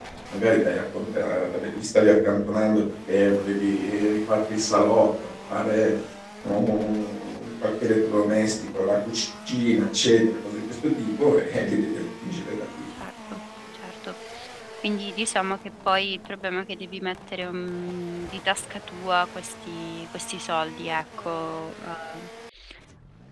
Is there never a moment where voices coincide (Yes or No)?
Yes